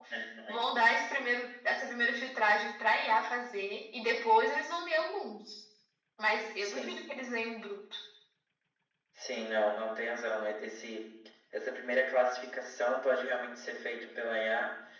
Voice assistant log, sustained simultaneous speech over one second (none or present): none